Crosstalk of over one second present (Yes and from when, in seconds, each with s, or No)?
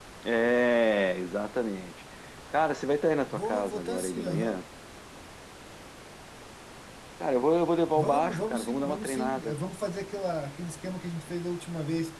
Yes, from 3.3 s